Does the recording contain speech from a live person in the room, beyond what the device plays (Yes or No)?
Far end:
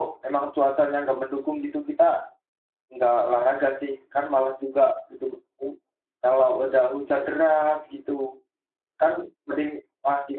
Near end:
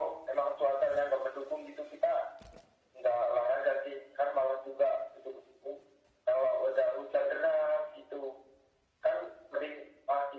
No